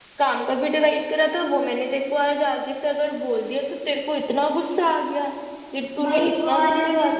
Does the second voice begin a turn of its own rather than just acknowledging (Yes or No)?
Yes